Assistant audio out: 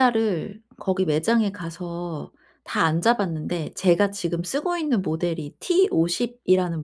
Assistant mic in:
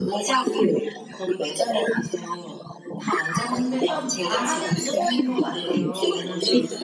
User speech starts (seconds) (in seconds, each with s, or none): 3.4 s